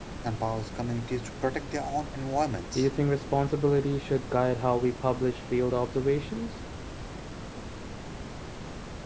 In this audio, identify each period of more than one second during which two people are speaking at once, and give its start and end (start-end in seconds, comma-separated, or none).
none